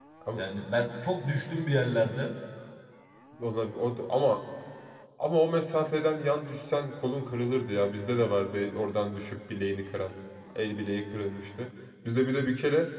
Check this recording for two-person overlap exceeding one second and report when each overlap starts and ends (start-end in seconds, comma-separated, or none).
none